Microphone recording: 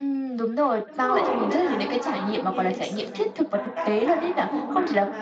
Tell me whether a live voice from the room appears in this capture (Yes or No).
Yes